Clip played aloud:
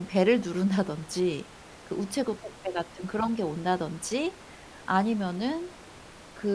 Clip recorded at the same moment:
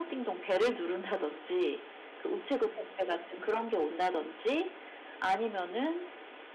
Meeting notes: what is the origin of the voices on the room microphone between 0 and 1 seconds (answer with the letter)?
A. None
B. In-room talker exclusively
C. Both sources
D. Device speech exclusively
D